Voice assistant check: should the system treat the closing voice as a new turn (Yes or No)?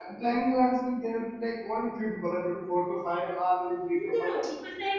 Yes